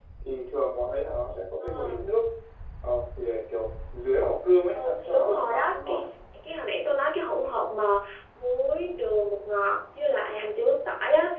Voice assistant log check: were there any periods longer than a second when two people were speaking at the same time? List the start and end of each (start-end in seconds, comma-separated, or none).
4.8-6.0